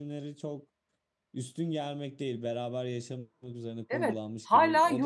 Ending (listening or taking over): taking over